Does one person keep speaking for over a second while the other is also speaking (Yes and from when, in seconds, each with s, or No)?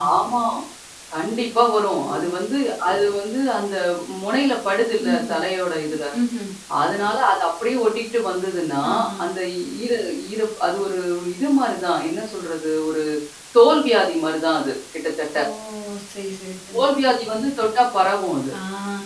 No